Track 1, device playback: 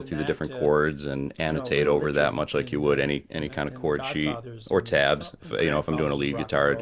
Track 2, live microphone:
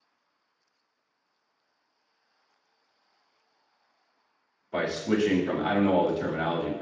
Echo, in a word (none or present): none